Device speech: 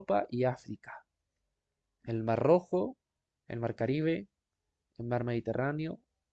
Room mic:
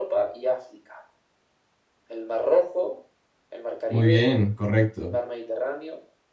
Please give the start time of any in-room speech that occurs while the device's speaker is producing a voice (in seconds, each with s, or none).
3.9 s